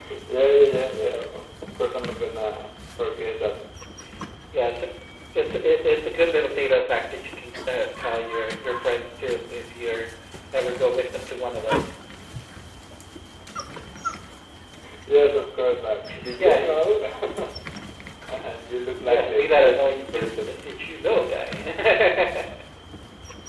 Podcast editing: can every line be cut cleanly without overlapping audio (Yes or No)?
No